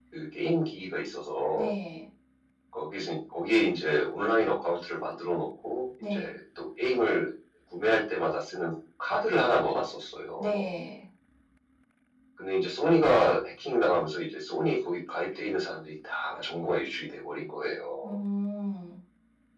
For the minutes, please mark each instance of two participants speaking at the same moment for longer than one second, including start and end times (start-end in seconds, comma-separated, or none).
none